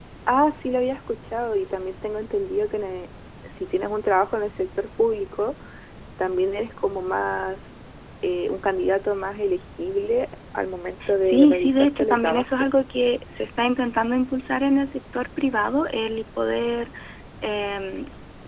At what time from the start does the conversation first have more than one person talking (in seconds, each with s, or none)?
11.2 s